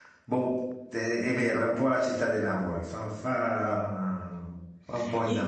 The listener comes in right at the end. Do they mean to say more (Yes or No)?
Yes